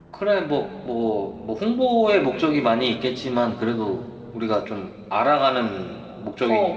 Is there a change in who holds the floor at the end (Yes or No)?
Yes